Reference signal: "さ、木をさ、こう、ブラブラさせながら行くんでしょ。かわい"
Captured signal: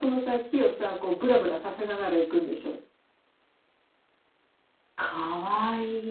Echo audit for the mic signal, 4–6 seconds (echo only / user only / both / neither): echo only